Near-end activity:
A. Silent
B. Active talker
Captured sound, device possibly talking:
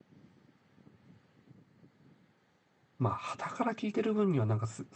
B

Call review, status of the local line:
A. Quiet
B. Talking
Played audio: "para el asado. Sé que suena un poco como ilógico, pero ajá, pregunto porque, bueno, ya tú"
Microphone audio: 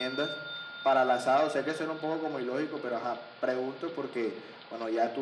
A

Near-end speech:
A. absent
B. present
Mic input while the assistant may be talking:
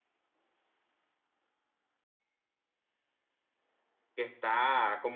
B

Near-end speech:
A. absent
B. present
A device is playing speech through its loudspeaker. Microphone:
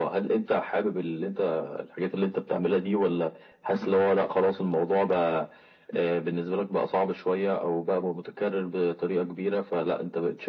A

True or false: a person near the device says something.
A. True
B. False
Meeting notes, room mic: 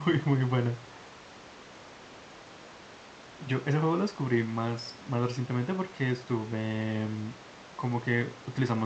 A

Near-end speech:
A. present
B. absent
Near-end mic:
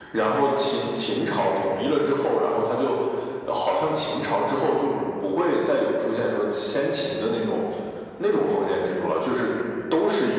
B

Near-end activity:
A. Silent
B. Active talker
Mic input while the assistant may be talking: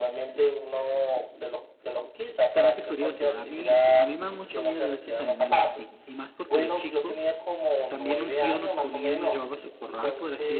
B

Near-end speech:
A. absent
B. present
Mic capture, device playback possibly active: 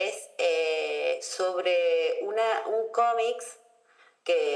A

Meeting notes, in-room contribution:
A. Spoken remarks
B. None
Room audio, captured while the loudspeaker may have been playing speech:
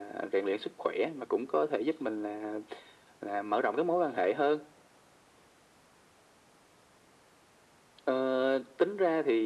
B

